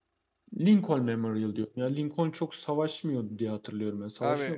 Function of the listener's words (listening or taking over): taking over